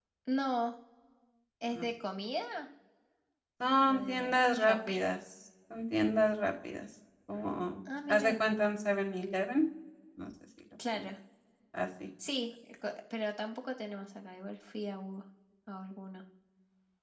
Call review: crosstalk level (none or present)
present